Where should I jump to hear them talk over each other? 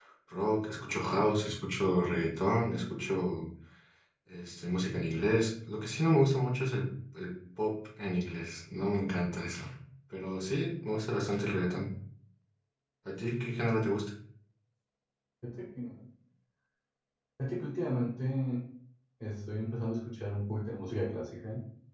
none

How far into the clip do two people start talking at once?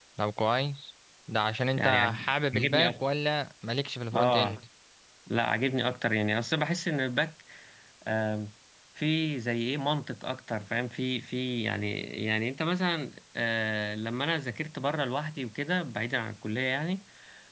1.8 s

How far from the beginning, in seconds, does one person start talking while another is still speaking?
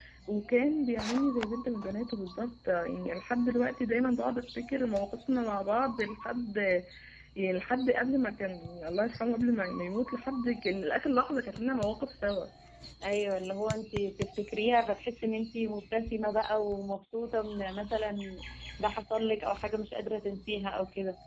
none

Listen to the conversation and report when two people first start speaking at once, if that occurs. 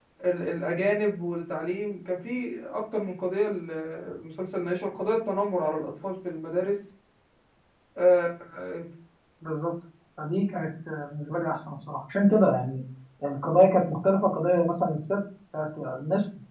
none

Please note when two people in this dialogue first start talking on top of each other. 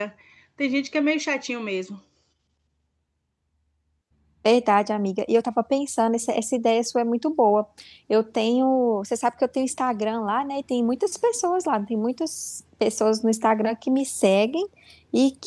none

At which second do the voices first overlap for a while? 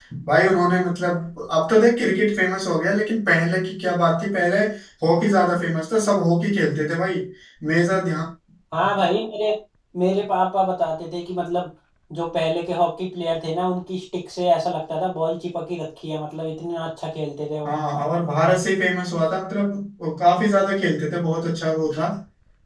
none

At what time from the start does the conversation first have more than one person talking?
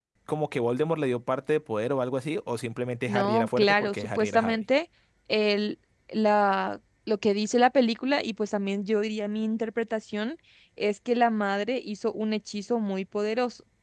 3.1 s

